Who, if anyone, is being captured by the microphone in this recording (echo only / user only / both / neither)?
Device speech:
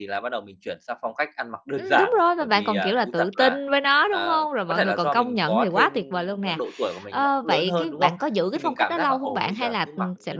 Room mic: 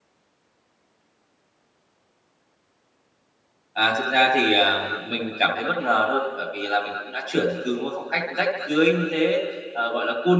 user only